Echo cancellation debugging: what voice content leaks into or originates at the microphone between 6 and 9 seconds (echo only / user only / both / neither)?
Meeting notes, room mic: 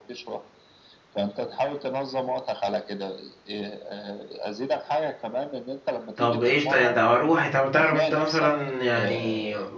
both